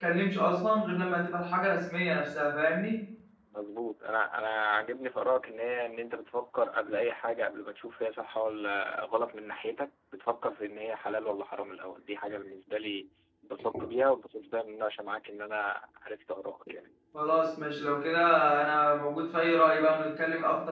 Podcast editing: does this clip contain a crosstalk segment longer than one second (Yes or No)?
No